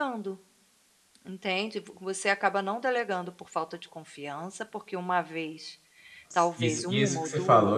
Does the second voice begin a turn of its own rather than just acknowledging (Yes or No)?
Yes